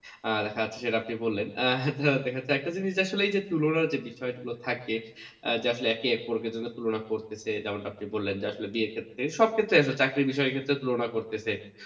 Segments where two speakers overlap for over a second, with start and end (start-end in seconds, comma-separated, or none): none